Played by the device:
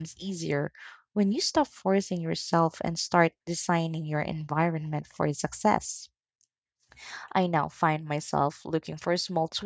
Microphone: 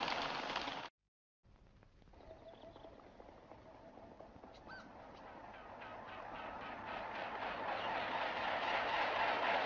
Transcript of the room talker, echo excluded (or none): none